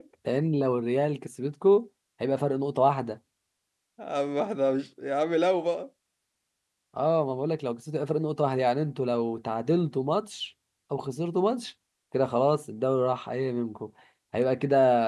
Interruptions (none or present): none